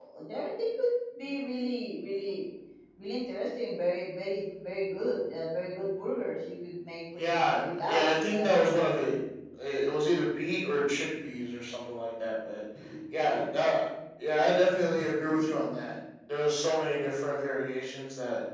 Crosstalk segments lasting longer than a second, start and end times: 7.2-8.5

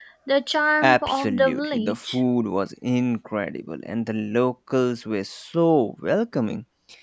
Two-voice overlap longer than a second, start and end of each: 0.8-2.2

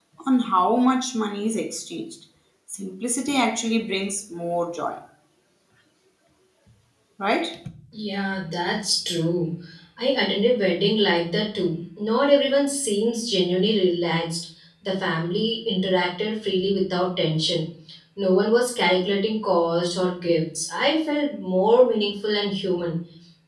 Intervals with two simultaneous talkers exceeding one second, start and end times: none

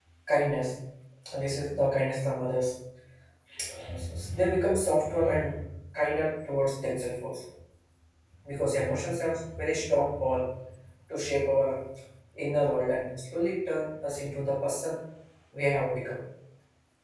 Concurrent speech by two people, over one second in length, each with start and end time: none

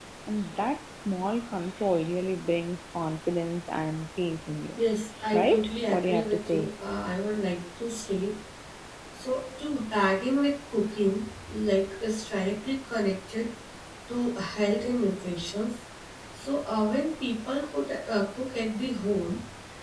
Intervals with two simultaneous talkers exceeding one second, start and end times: 5.3-6.7

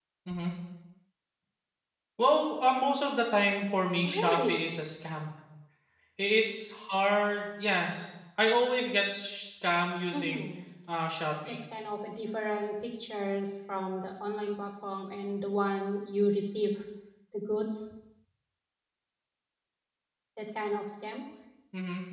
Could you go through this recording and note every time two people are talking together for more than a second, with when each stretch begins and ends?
none

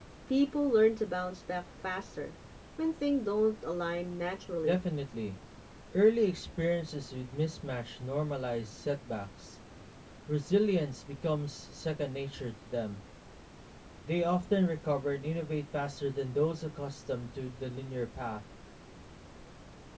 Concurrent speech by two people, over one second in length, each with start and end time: none

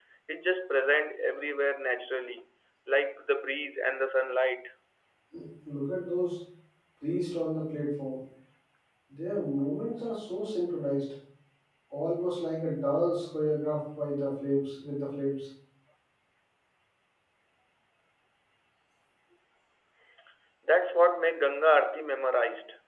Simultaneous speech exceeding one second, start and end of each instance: none

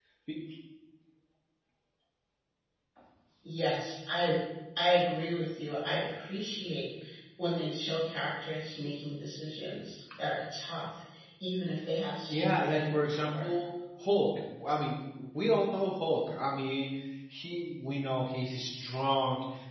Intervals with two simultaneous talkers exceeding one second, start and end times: 12.3-13.5

